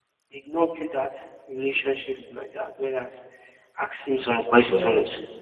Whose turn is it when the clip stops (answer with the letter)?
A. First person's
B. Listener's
A